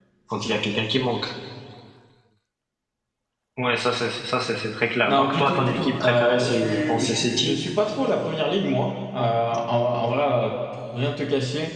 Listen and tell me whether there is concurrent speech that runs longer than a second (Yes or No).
Yes